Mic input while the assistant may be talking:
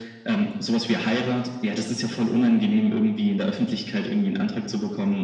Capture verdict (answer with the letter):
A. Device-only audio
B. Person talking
A